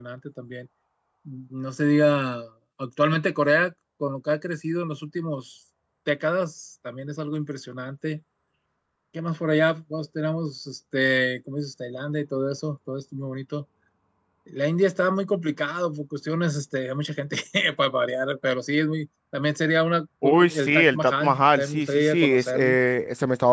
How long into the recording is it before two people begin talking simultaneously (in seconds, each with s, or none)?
20.5 s